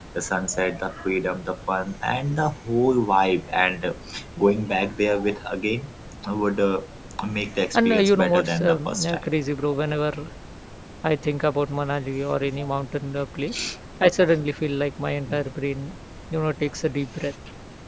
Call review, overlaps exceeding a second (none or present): present